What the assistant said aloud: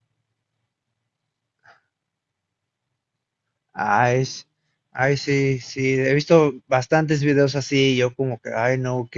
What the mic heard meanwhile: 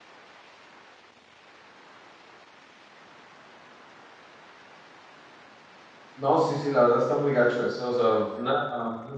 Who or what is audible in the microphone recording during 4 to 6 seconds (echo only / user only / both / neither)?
neither